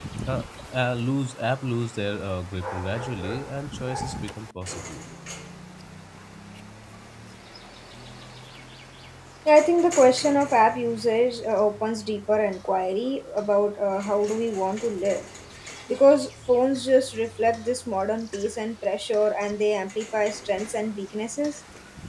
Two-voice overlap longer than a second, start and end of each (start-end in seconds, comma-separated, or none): none